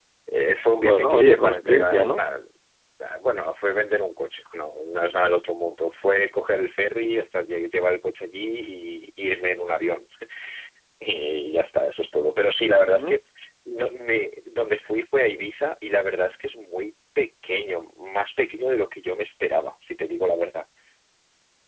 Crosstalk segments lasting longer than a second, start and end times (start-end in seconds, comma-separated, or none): 0.8-2.1